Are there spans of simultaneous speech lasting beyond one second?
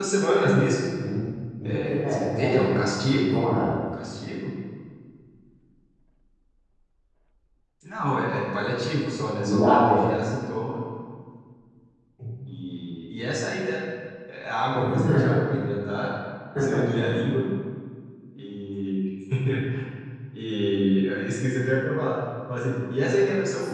Yes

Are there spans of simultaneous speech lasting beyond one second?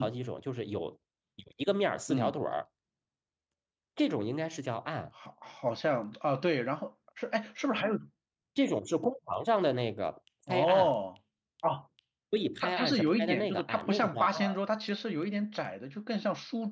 Yes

